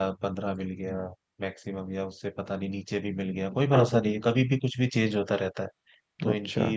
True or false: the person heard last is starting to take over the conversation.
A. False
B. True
A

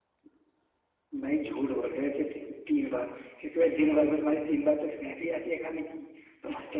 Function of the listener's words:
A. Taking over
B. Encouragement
B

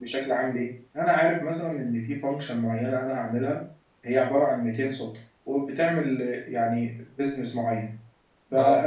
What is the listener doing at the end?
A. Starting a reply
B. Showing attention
B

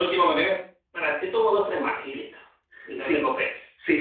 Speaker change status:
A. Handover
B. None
A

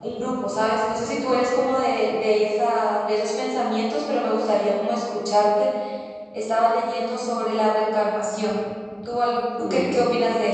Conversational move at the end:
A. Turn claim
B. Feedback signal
B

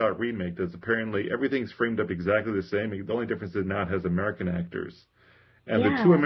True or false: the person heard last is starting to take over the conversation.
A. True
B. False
B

